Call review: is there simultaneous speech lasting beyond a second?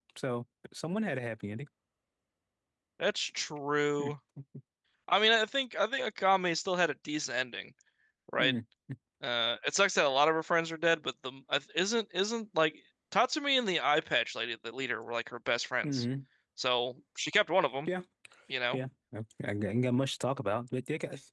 No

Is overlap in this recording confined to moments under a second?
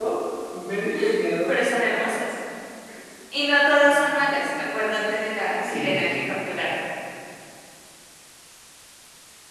Yes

